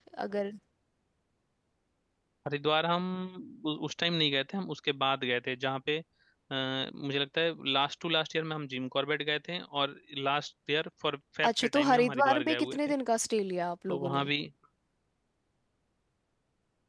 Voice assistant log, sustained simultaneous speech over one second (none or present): present